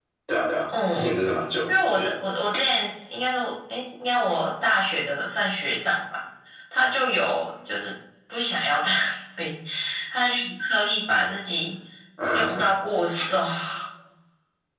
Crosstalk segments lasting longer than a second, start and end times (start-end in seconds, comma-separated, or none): none